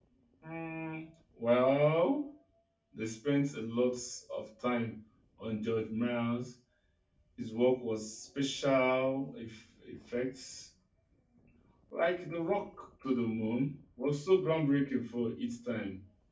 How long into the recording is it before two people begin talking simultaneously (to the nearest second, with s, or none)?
none